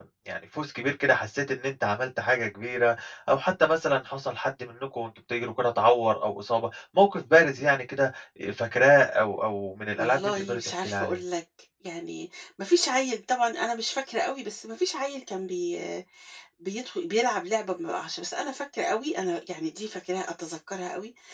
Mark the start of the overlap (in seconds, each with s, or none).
10.0 s